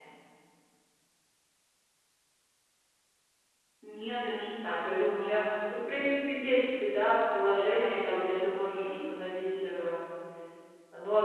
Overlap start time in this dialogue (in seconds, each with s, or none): 4.6 s